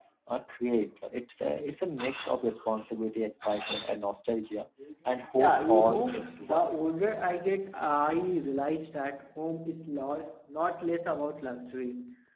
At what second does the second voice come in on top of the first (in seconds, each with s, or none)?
5.3 s